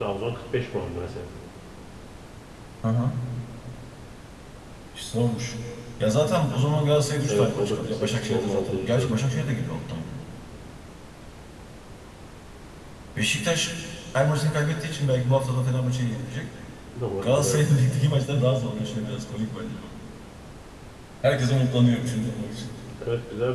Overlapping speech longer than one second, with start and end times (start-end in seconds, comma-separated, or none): 7.3-9.2